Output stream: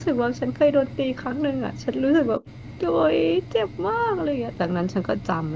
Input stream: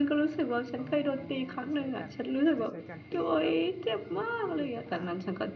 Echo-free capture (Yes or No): No